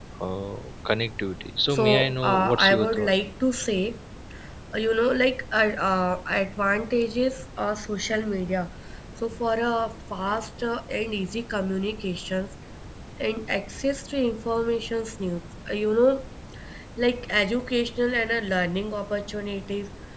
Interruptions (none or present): present